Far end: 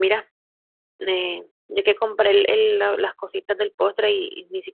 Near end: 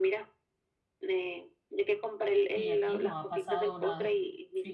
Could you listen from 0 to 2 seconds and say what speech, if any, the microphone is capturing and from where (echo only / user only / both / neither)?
echo only